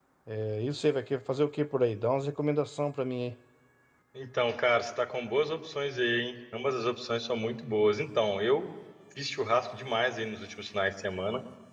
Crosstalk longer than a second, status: none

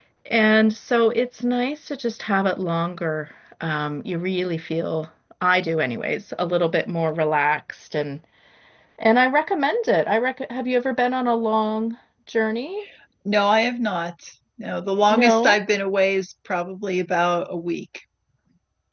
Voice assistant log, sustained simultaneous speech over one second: none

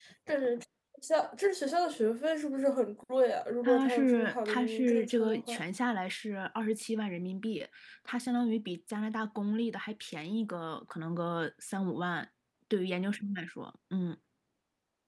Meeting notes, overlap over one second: present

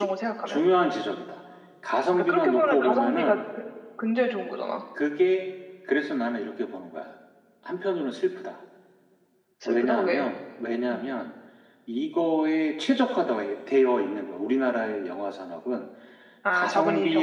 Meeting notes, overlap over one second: present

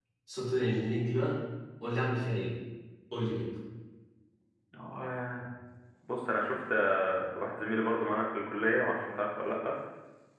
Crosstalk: none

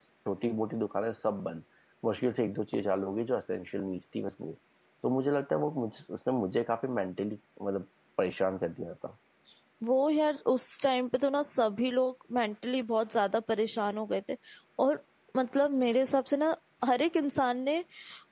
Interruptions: none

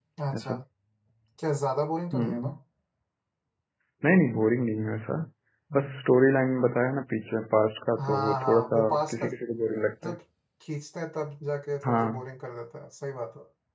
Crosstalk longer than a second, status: present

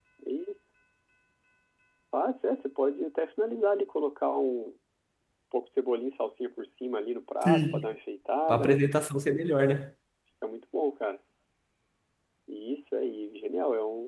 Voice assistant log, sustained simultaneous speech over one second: none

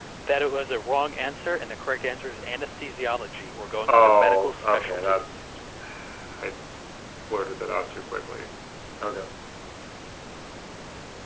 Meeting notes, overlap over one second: present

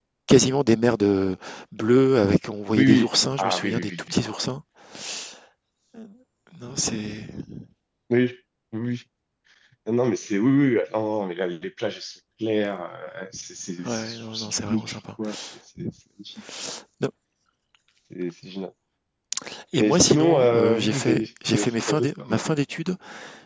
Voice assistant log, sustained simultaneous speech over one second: present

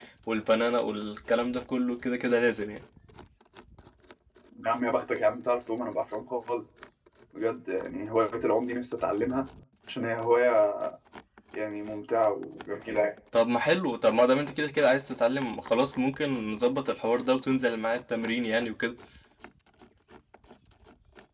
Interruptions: none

